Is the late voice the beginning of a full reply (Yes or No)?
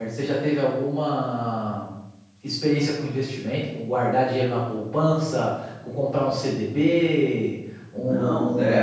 Yes